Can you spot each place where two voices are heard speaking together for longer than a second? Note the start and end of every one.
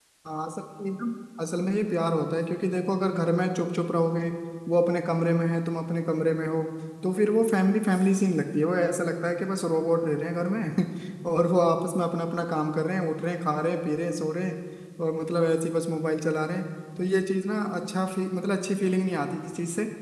none

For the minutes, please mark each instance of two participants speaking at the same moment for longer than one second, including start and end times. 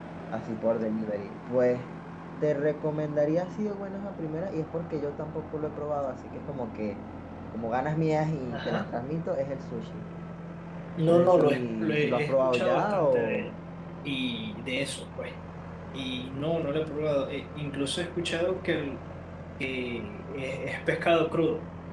11.1-13.5

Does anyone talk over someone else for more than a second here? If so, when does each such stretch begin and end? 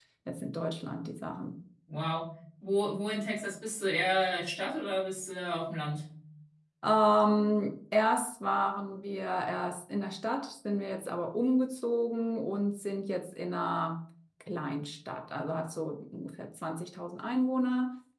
none

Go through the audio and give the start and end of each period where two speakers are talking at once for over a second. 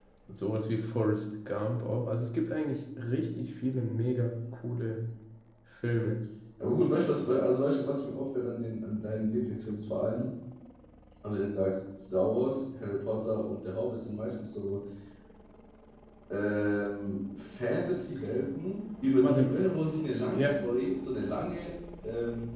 none

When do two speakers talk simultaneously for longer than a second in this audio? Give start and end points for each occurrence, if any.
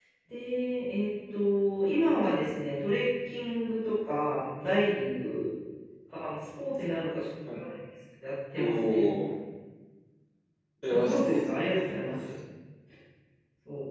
10.9-12.2

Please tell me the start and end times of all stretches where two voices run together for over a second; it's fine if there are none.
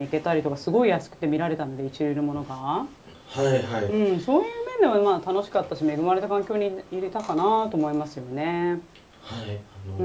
none

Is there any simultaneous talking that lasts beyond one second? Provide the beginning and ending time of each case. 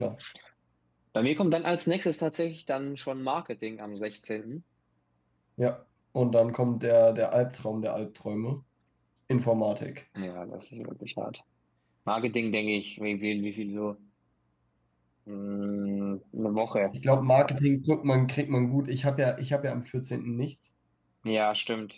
none

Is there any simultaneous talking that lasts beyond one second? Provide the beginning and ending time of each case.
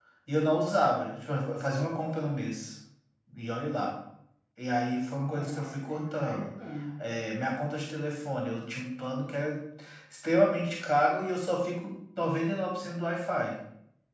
5.3-6.5

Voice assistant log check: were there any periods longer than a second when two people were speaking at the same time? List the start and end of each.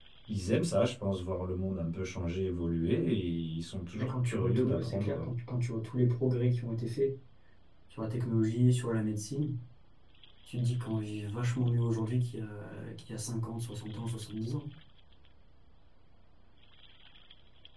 4.0-5.3

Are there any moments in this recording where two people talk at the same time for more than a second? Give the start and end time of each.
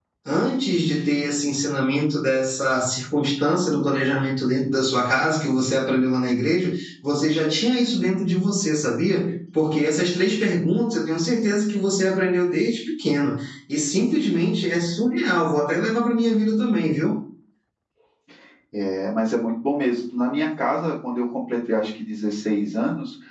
none

